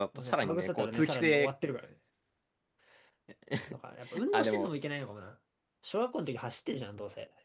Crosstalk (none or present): present